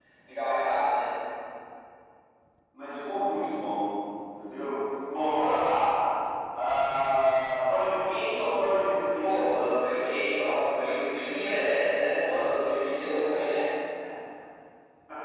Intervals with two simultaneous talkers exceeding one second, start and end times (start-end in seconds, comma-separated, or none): none